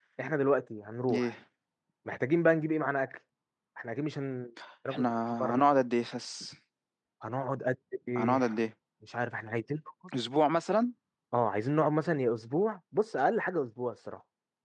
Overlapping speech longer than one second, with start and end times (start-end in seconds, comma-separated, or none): none